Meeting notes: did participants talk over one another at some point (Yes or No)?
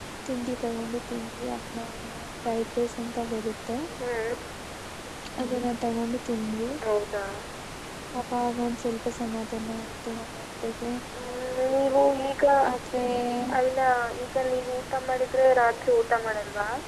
No